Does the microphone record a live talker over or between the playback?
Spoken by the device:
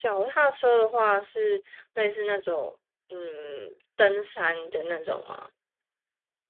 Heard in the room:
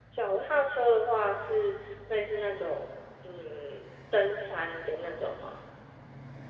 No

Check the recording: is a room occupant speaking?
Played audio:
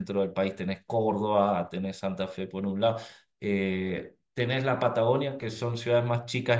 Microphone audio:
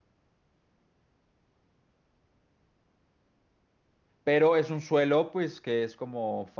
Yes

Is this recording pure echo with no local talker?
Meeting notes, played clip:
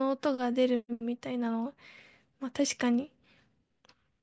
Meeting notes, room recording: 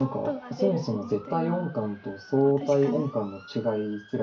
No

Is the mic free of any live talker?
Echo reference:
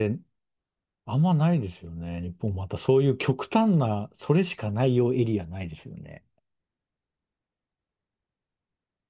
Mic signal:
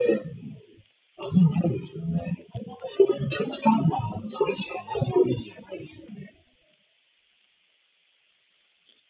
Yes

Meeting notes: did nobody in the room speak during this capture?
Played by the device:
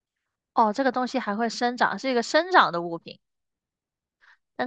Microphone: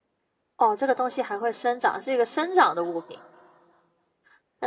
Yes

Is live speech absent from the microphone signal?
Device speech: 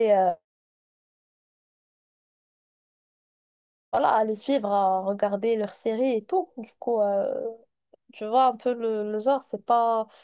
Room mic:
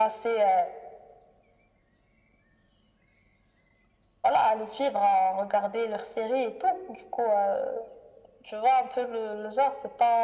Yes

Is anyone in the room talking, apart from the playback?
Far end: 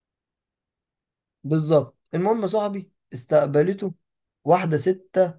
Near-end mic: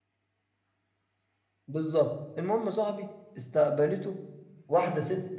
No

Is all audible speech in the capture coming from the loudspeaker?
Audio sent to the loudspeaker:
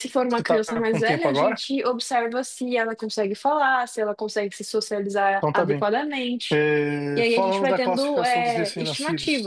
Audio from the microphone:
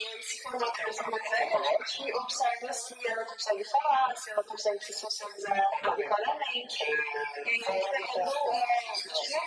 Yes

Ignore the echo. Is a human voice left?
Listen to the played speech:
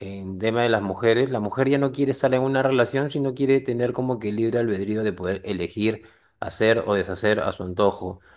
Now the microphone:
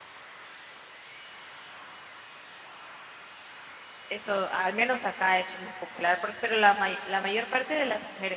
Yes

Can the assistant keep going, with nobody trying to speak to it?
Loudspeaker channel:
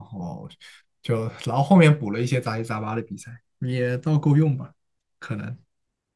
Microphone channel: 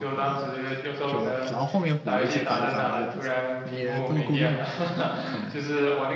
No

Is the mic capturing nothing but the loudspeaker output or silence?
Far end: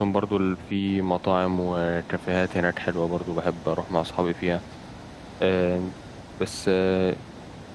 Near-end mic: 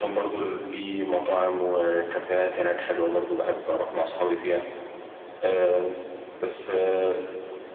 Yes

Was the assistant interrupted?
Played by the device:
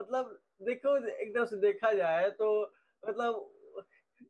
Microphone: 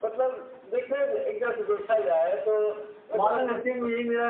Yes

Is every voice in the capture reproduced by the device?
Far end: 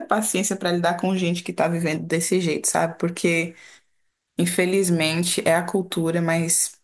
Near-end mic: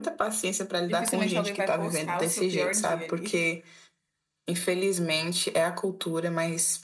No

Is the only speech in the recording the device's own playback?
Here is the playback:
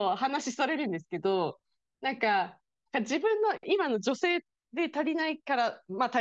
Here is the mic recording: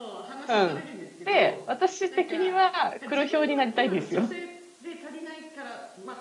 No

